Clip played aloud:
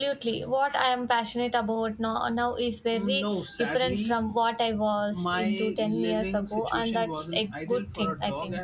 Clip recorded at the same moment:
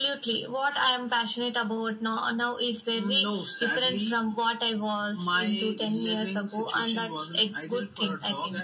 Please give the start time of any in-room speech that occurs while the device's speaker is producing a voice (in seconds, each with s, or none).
none